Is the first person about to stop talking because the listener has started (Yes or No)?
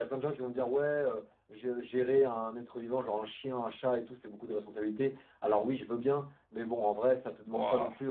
No